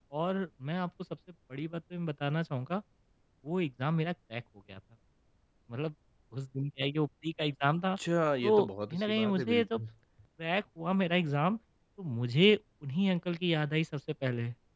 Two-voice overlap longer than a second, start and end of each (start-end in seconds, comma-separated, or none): 8.4-9.8